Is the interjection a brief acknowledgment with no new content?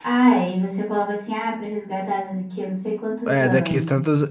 No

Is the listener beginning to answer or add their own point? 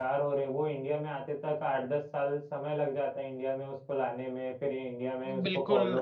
Yes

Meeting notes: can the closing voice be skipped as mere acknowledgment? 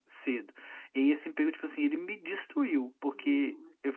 Yes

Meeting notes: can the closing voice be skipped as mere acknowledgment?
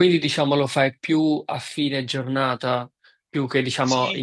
No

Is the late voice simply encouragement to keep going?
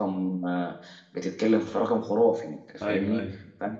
Yes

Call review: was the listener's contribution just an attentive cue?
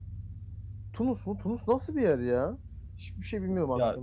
No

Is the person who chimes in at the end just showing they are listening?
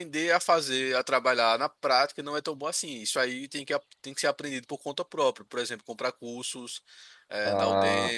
No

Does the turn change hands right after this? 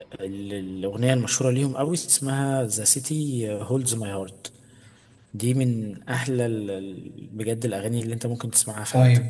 Yes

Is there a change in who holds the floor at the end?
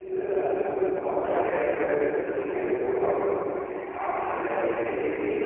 No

